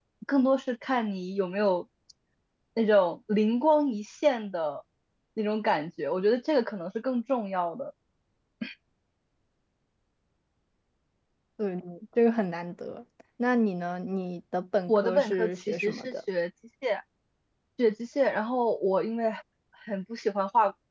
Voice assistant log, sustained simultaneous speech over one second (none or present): present